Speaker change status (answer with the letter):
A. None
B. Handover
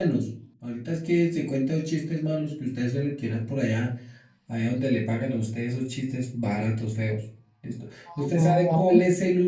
A